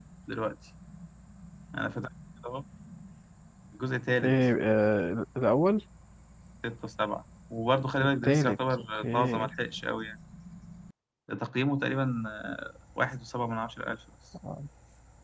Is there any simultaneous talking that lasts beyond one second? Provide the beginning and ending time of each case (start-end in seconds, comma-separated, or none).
8.0-9.5